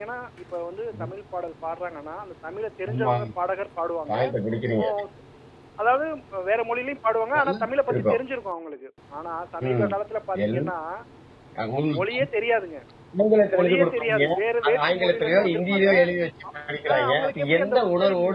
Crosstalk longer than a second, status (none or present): present